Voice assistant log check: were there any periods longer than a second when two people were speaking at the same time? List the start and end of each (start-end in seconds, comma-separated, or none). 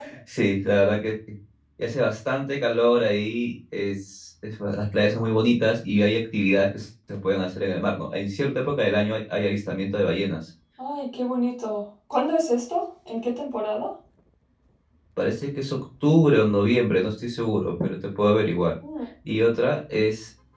none